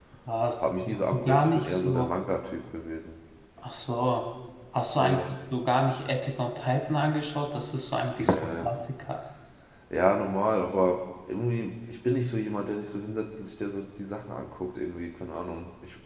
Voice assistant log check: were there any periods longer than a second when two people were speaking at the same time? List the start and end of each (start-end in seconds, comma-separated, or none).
0.6-2.1